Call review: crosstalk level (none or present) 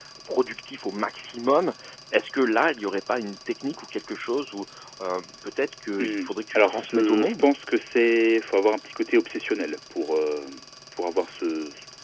present